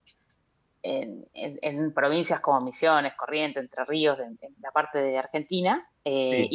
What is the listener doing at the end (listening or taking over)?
listening